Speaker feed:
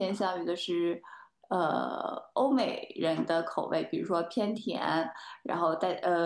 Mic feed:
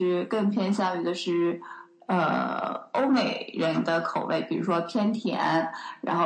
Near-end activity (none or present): none